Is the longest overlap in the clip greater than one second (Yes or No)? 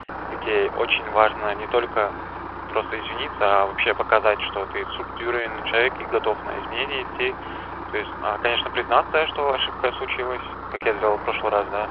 No